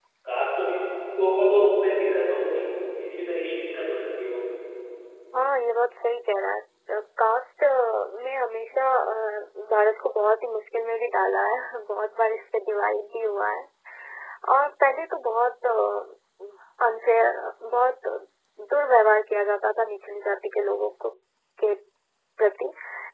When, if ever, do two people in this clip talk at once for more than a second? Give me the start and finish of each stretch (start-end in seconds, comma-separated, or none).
none